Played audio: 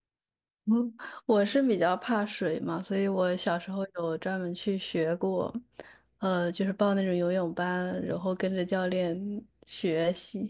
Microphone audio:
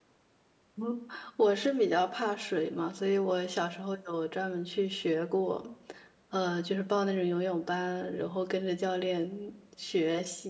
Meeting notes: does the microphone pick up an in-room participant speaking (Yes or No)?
No